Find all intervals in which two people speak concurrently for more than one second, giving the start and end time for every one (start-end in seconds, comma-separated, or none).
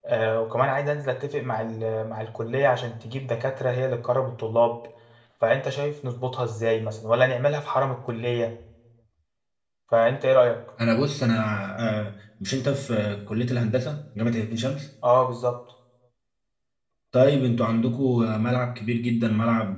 none